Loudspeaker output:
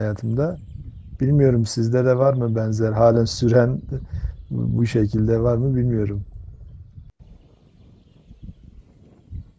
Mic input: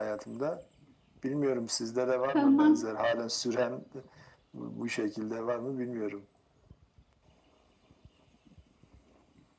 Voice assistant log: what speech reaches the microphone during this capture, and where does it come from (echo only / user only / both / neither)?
both